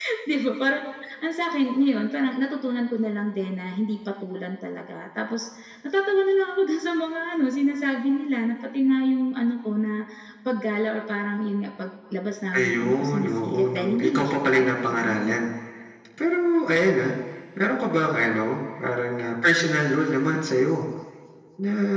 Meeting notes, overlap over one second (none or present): present